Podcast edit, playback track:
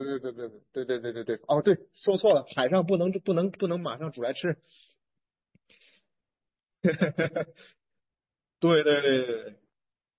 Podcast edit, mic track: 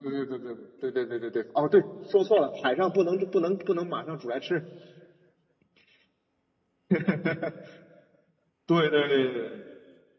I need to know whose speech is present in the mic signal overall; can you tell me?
echo only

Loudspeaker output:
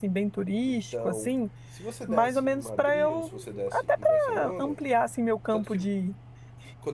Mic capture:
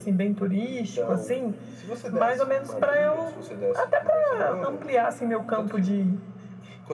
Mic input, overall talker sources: echo only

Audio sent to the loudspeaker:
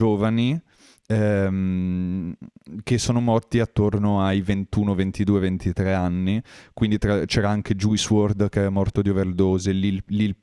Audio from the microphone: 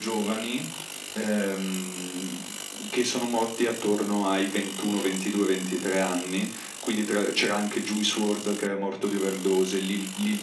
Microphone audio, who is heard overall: echo only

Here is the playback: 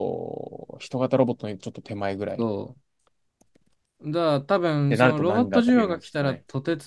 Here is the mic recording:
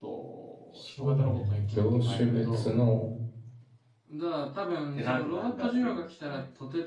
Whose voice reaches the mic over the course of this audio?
both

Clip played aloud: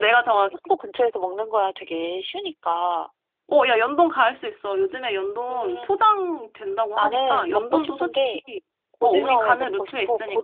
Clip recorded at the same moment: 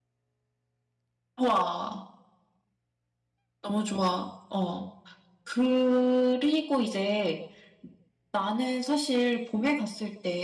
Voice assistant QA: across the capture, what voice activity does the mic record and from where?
user only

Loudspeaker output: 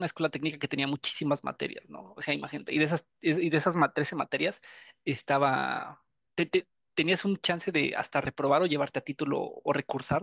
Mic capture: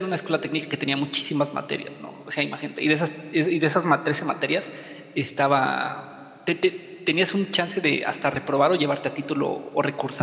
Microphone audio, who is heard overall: echo only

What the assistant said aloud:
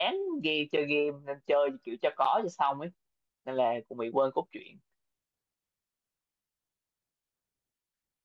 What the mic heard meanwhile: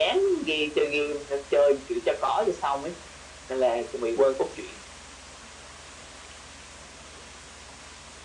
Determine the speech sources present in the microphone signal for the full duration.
echo only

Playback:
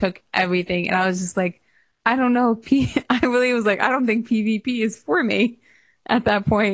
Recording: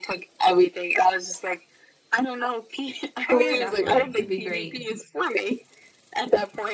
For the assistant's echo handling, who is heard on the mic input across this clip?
both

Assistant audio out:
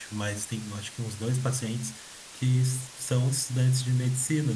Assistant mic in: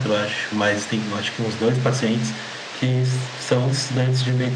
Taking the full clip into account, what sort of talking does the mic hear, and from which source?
echo only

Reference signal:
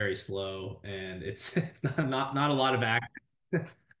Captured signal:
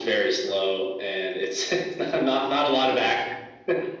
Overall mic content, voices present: echo only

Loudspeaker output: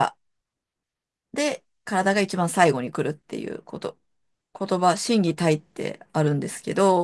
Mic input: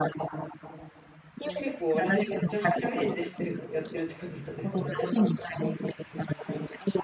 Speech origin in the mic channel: both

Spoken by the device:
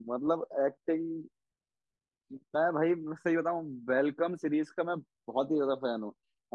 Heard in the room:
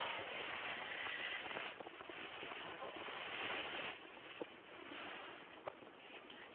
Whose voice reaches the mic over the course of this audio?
neither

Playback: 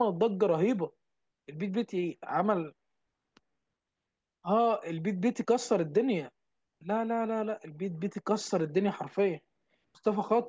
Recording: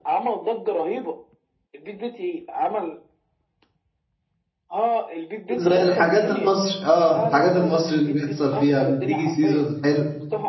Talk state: both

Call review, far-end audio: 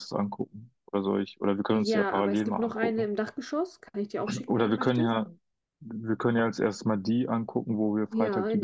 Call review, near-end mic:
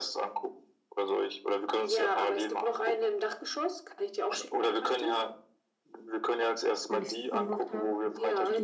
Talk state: both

